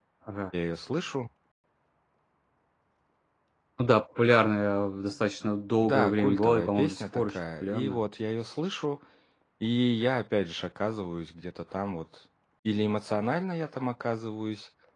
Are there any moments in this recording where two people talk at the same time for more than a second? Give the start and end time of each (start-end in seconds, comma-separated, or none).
5.8-8.0